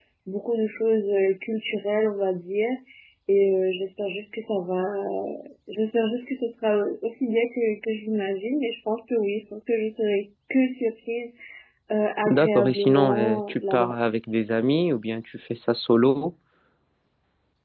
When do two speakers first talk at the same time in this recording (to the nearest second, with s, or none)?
12 s